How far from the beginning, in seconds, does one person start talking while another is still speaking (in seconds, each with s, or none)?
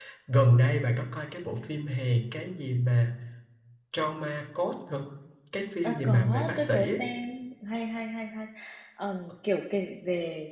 5.8 s